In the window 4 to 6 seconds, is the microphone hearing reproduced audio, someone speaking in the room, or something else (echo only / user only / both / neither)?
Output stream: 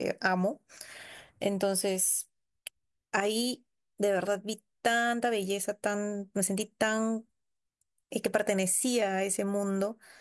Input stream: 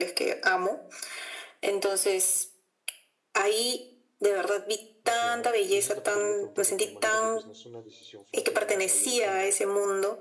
both